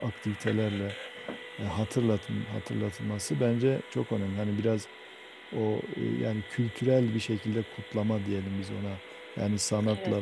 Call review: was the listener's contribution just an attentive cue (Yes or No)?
Yes